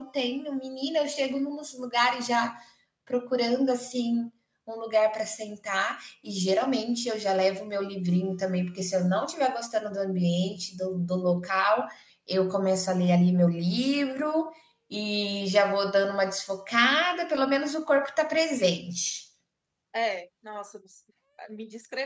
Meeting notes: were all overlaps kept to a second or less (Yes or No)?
Yes